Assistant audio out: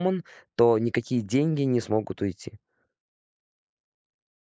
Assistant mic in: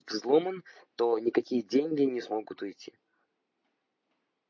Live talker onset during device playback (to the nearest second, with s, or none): none